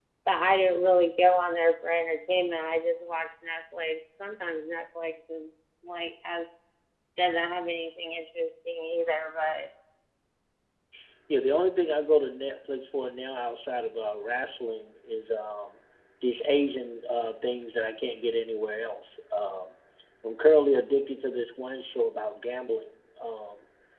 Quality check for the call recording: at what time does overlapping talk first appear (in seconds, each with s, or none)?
none